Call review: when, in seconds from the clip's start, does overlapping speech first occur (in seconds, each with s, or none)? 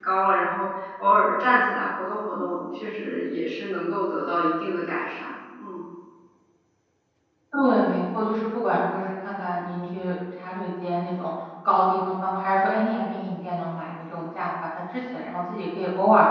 none